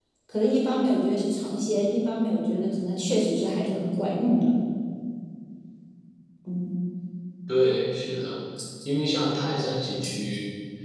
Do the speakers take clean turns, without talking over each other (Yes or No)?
Yes